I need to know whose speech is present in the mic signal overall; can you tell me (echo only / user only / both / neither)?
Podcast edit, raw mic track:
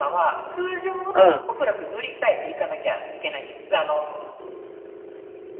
both